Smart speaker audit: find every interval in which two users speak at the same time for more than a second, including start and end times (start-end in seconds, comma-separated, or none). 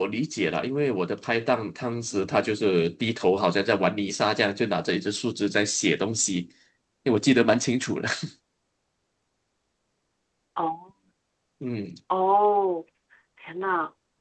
none